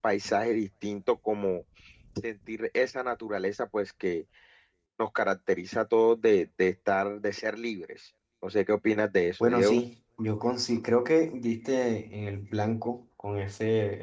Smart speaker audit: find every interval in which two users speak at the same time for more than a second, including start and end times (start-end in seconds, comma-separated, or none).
none